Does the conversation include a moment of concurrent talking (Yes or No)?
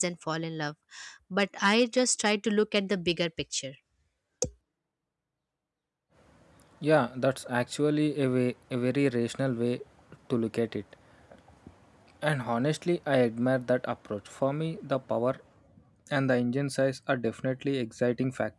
No